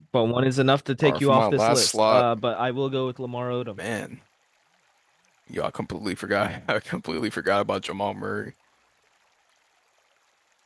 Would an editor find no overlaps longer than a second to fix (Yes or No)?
No